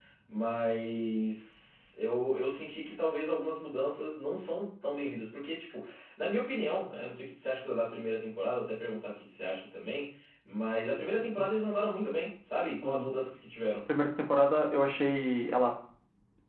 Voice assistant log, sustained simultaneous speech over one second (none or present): none